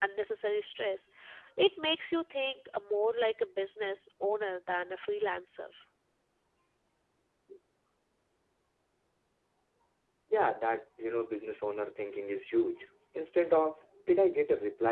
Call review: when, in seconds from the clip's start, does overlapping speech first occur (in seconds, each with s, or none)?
none